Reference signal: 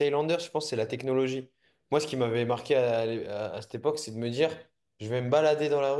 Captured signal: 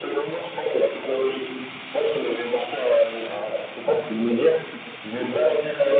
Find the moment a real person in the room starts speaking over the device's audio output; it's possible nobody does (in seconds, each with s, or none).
none